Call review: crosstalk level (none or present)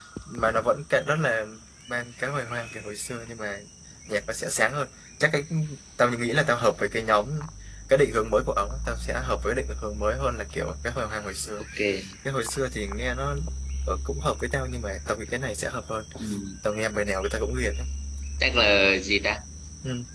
none